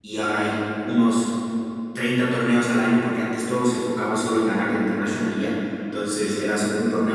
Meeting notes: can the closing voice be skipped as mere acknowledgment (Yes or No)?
Yes